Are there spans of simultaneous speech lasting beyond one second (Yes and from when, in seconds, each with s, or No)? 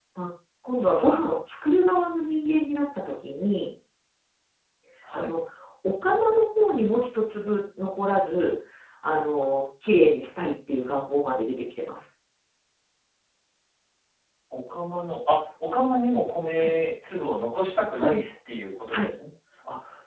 No